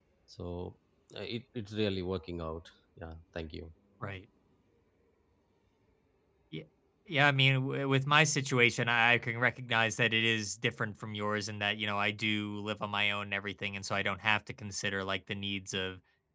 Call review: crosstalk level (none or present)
none